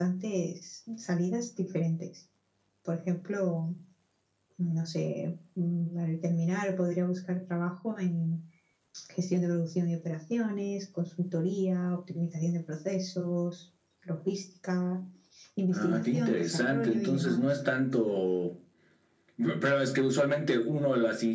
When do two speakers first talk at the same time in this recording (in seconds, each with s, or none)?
15.7 s